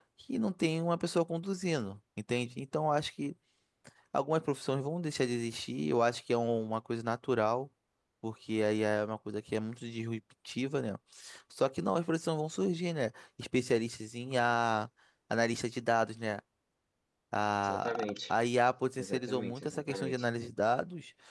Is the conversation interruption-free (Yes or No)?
No